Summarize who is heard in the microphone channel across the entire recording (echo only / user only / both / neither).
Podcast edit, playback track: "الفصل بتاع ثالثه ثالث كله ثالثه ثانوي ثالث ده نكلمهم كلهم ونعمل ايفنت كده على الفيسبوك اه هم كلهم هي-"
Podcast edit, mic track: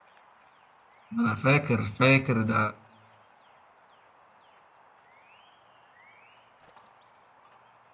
user only